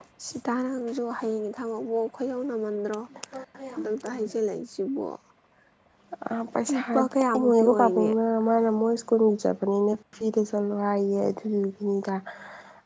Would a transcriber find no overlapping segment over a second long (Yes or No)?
No